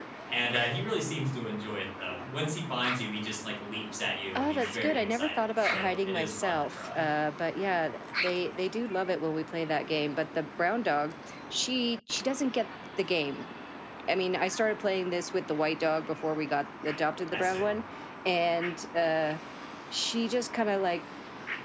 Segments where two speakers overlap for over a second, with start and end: 4.3-7.1

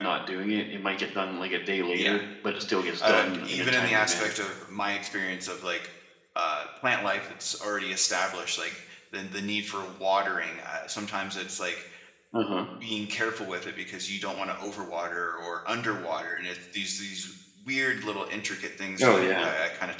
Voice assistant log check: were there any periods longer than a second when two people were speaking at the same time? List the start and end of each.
3.0-4.3

